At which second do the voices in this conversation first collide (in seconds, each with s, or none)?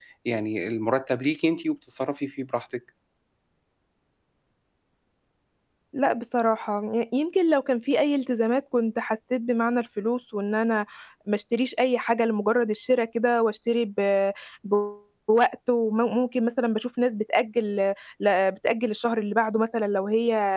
none